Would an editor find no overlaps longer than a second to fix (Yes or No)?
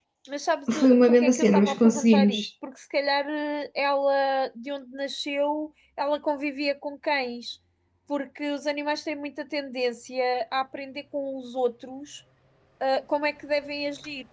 No